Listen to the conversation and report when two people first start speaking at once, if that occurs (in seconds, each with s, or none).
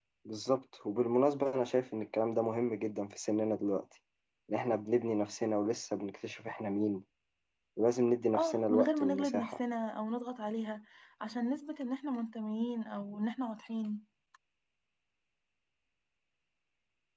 8.3 s